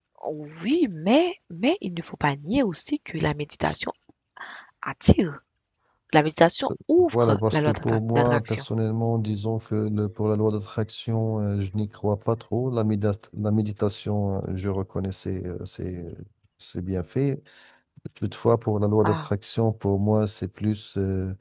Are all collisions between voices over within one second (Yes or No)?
No